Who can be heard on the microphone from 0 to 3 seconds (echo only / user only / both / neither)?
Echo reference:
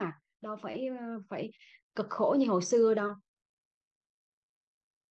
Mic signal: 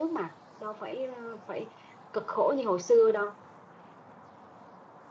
echo only